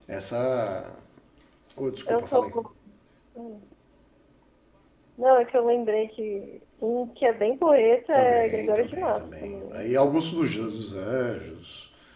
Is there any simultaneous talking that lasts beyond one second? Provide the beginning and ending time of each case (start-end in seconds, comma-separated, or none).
8.2-9.8